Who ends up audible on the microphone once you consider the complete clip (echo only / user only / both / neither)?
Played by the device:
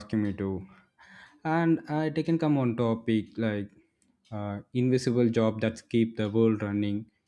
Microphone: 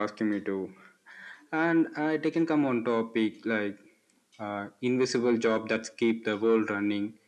echo only